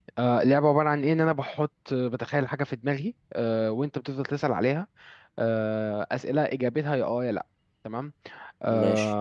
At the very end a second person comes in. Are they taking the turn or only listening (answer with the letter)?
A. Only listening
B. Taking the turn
A